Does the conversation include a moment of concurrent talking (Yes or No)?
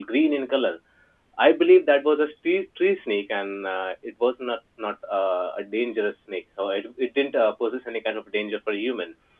No